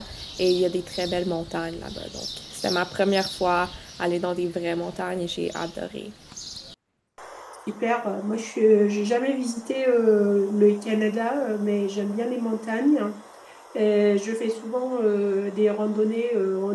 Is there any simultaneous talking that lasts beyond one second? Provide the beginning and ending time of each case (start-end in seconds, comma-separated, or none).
none